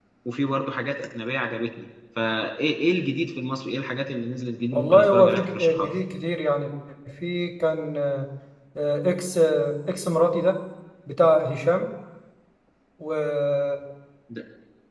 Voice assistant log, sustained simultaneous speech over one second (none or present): present